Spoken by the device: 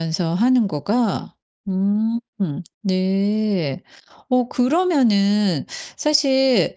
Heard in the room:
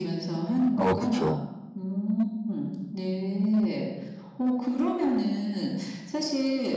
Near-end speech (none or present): present